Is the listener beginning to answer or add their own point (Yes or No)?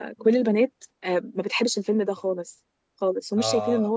No